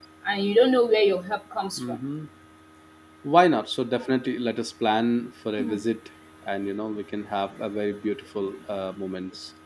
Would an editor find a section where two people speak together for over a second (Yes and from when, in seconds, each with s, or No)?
No